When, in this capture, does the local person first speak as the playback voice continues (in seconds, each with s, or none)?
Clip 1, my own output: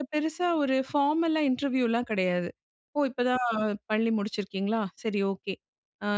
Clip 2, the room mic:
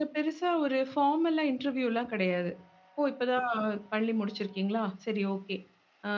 none